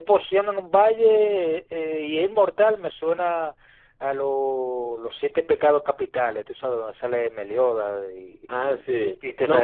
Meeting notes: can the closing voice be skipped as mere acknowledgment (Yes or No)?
No